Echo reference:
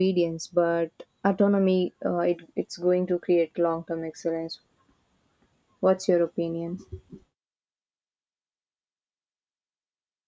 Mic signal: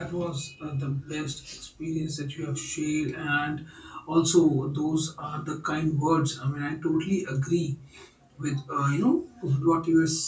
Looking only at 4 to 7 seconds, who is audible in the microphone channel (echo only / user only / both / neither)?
user only